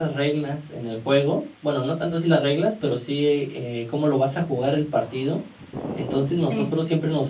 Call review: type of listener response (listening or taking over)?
listening